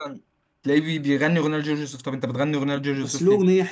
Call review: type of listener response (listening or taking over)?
taking over